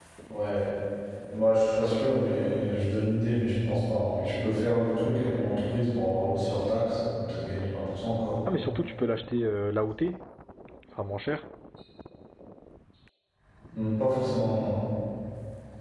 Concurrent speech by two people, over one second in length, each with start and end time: none

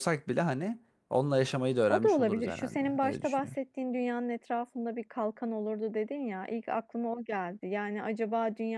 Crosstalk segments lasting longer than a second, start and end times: 1.9-3.5

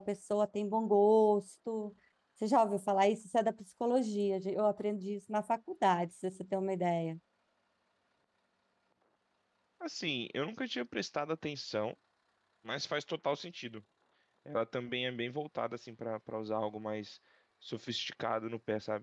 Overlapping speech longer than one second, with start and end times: none

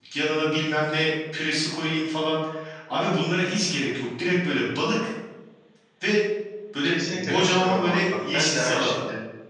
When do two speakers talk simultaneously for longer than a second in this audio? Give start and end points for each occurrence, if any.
6.8-8.9

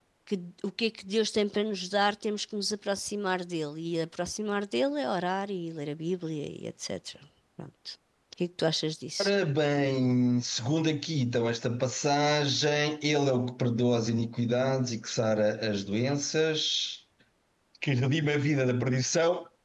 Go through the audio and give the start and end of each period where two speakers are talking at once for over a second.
none

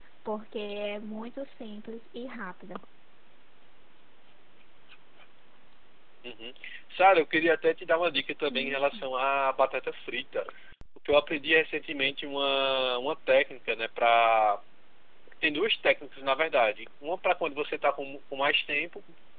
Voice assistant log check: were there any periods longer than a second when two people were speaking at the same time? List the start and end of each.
none

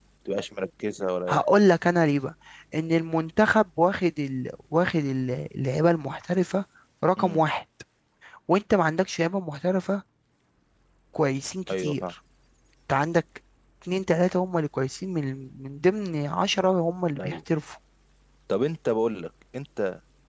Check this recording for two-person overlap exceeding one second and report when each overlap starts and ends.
none

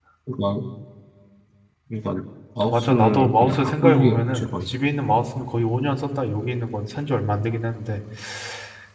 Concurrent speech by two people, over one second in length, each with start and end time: 2.6-4.7

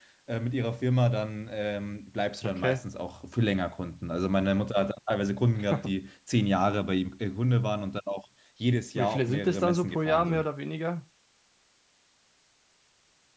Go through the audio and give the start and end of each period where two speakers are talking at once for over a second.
9.0-10.4

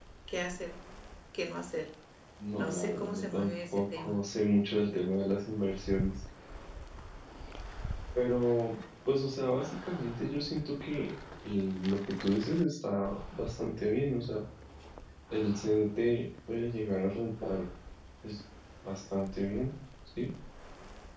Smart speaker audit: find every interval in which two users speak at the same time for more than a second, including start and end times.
2.6-4.2

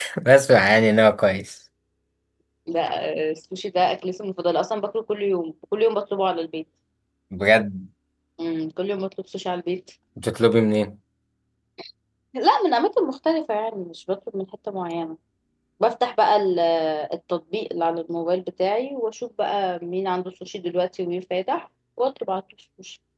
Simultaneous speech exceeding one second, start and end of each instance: none

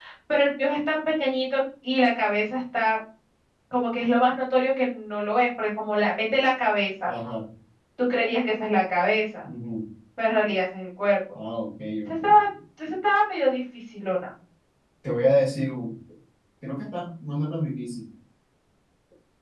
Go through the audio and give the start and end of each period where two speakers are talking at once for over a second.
none

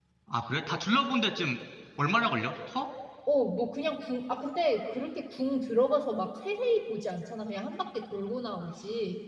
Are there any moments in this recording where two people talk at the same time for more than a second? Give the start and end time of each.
none

